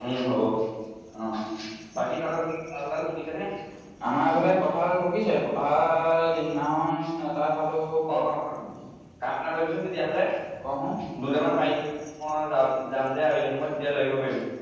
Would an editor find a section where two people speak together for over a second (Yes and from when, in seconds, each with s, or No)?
No